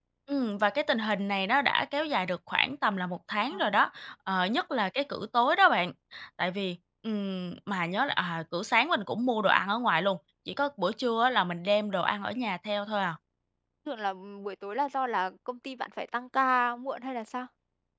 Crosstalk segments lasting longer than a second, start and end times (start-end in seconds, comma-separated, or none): none